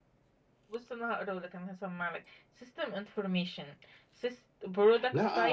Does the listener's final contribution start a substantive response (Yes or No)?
Yes